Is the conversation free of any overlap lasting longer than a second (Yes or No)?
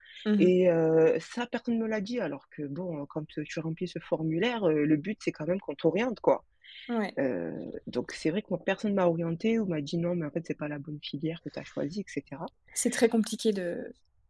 Yes